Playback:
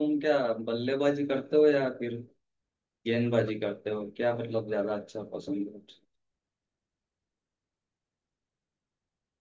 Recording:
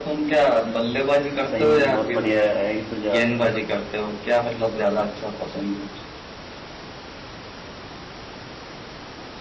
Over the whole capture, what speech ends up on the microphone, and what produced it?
both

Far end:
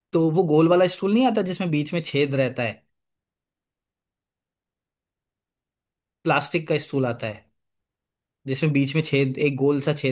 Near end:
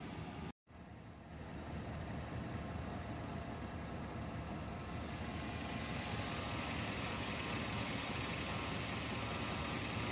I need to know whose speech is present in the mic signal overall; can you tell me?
neither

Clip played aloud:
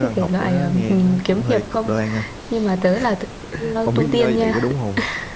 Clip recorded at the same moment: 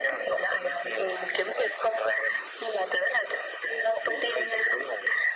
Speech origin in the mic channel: echo only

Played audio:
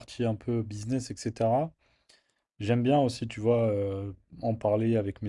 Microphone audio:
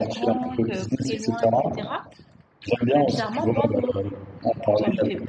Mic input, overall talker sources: both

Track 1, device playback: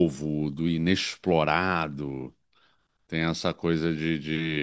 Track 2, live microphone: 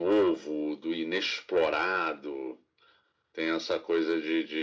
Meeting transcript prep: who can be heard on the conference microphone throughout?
echo only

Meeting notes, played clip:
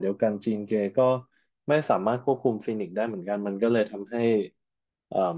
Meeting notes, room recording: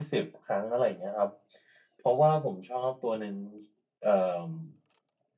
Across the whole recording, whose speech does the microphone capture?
user only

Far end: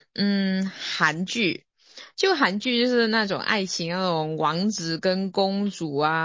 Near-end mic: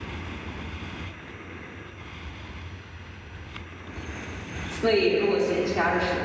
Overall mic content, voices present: user only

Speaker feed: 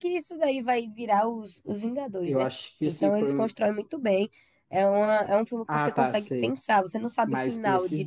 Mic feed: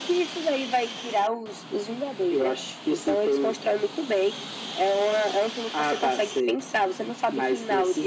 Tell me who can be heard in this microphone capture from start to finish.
echo only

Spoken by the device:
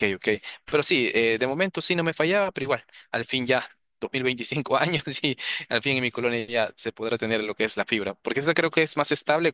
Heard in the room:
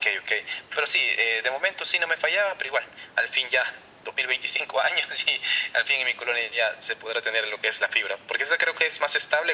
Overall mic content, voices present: echo only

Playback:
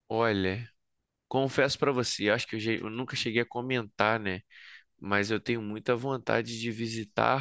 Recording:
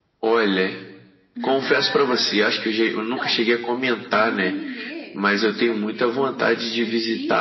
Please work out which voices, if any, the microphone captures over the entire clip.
both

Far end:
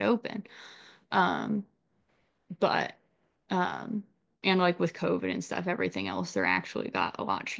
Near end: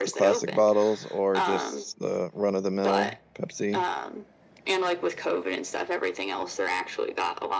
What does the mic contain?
both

